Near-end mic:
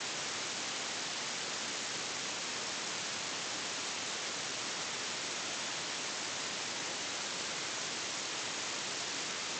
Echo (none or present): none